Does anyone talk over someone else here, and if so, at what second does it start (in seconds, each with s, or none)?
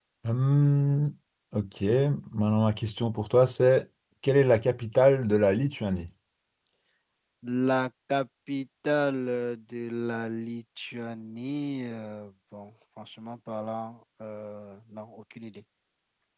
none